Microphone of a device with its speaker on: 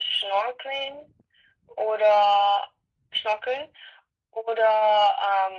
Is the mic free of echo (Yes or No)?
No